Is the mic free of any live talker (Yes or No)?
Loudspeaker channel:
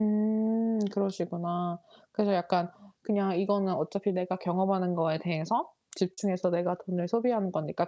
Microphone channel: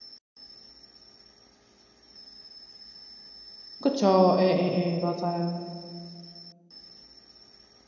No